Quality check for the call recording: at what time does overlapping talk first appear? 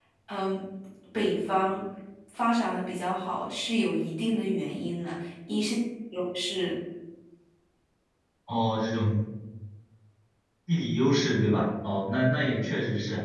none

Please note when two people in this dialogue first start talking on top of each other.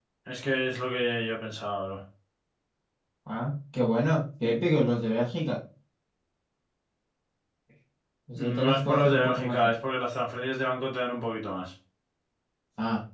8 s

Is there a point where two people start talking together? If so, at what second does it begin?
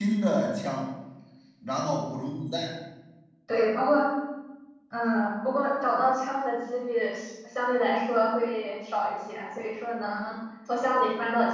none

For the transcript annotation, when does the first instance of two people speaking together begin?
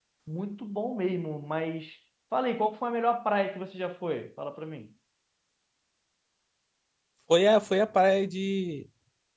none

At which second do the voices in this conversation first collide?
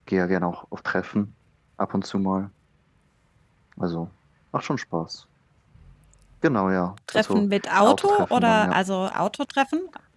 7 s

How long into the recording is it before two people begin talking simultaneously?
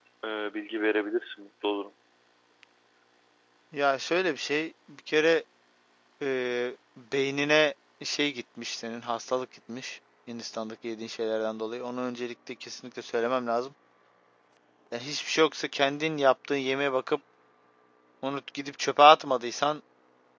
none

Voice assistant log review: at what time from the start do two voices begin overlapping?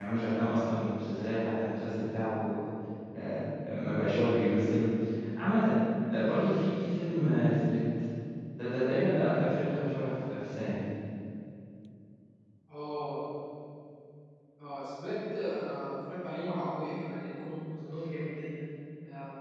none

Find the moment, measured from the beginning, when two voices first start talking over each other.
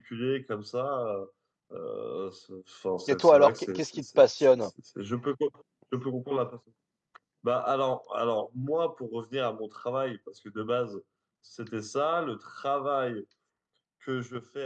3 s

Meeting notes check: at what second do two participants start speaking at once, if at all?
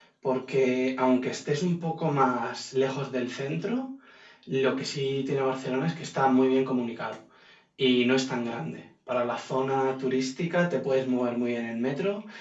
none

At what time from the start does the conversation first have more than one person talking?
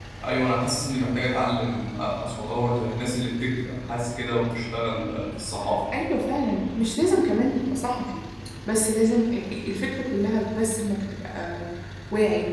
none

